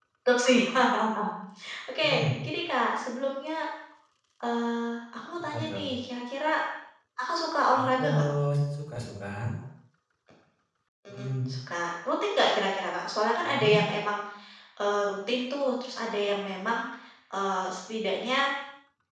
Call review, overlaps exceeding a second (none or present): none